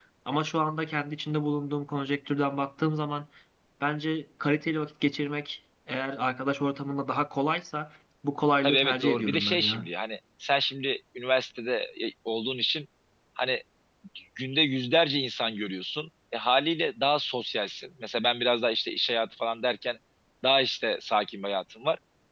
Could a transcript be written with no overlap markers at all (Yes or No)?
No